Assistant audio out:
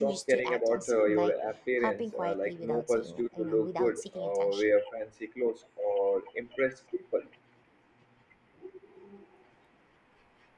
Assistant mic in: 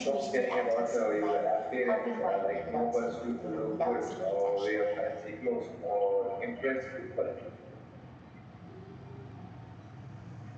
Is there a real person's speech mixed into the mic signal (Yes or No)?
No